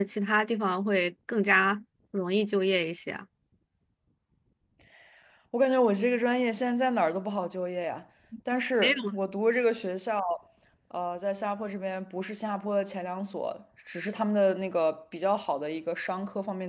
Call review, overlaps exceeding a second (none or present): none